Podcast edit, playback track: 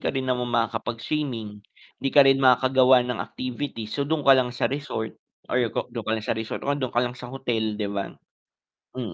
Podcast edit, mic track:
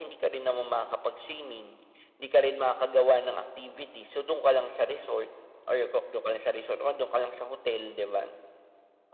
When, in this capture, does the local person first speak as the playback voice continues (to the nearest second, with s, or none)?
none